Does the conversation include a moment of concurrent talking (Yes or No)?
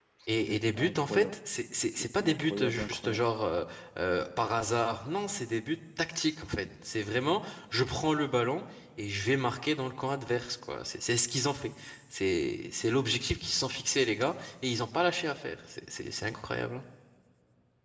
Yes